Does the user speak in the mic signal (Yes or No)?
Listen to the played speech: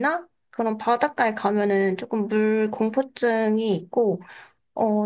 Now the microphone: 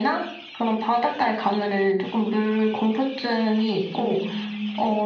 Yes